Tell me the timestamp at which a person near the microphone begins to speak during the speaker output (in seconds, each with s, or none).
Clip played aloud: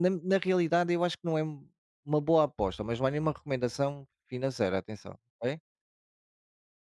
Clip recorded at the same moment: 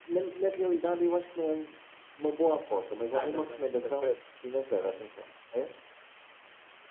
3.1 s